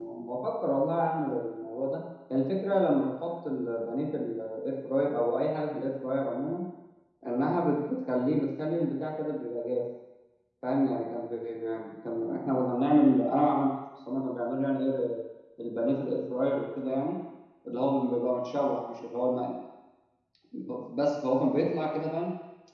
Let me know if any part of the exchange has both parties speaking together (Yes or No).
No